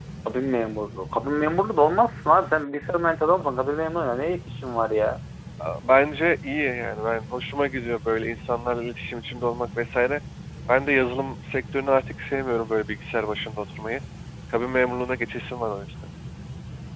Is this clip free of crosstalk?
Yes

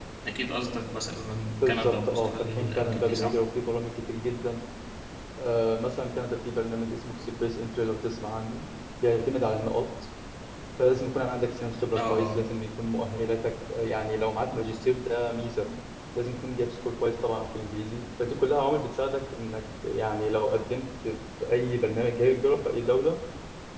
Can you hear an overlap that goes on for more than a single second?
Yes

